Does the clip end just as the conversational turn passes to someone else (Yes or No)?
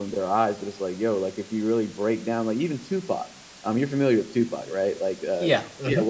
No